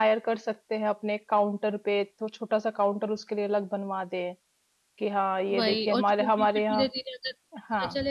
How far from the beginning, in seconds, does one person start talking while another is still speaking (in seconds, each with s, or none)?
5.6 s